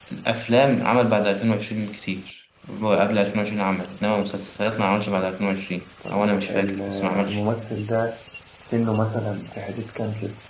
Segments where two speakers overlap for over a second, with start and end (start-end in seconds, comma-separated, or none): 6.1-7.4